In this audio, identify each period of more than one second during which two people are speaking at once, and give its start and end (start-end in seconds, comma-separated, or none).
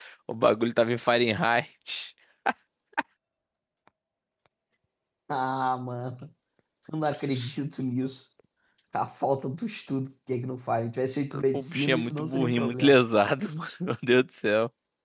11.5-13.0